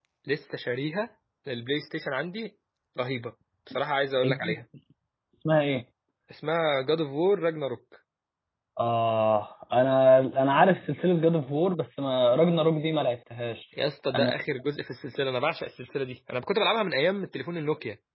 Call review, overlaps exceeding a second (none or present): none